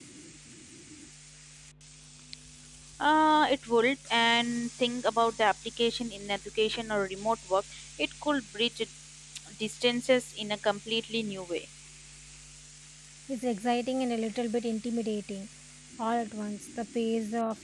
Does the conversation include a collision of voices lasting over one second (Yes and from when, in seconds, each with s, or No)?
No